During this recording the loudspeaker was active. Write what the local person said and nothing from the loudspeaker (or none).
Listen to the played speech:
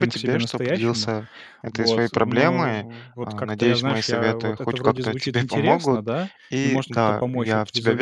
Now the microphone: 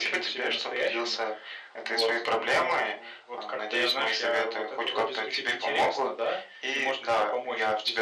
none